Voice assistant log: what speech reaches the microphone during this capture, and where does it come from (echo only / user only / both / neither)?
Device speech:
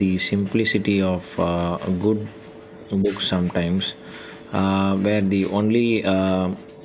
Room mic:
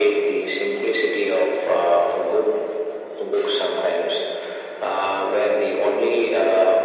echo only